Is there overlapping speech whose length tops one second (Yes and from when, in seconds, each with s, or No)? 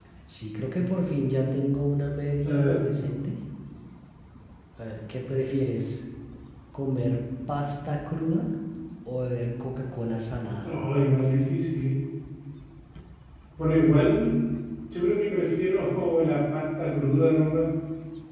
No